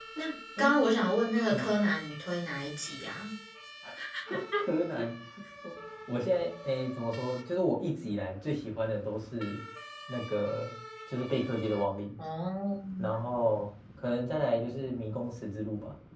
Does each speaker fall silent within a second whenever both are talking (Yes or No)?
Yes